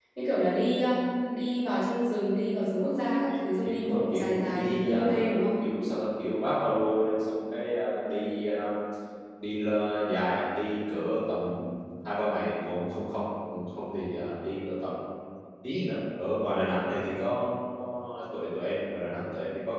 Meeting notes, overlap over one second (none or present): present